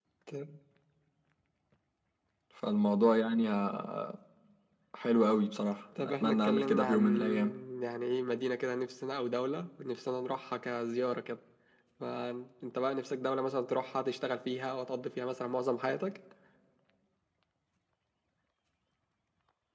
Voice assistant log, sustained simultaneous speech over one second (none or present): present